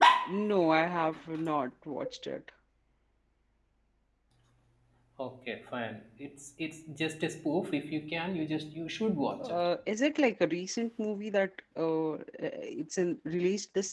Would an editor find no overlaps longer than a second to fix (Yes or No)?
Yes